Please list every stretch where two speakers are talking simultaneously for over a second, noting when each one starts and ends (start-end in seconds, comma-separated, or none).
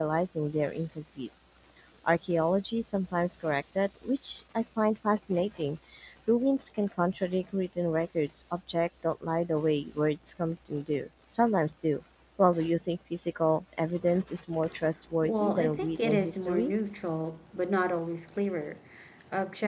15.2-16.7